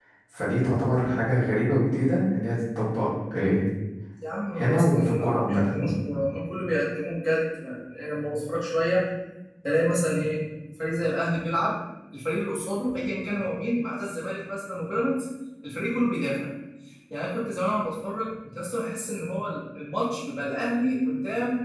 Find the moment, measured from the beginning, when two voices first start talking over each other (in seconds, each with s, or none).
4.6 s